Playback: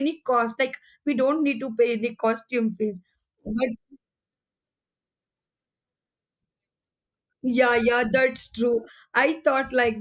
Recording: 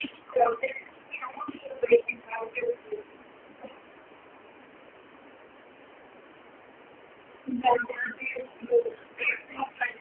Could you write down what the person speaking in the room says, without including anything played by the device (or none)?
none